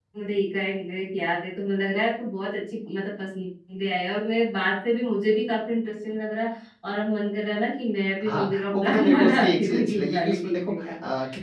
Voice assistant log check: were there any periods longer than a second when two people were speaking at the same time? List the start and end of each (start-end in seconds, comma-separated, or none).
8.2-10.9